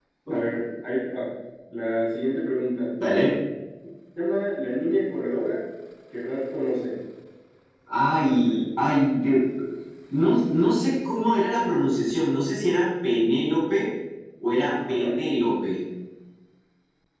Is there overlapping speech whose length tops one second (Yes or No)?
No